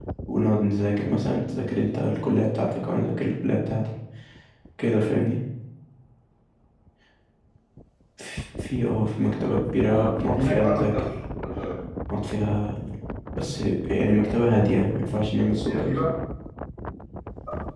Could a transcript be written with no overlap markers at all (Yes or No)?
No